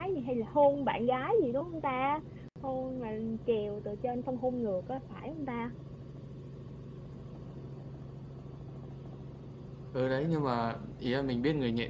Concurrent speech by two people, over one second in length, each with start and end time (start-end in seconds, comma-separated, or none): none